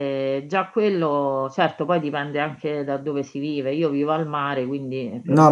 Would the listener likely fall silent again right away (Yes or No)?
No